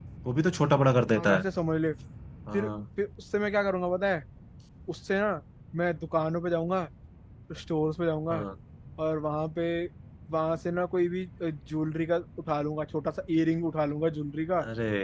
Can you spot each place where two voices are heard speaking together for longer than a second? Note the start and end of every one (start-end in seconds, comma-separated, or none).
none